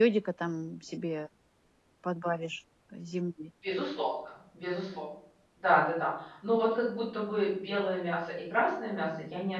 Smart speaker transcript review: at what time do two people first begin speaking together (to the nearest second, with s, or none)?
none